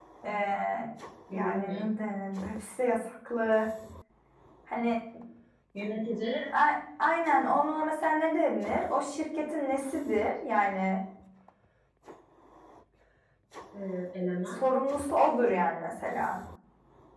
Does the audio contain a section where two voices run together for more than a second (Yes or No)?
No